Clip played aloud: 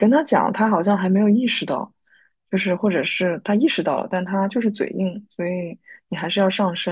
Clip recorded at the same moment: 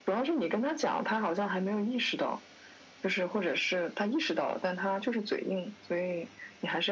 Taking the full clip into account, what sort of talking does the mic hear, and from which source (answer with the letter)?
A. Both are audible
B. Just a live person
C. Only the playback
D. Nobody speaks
C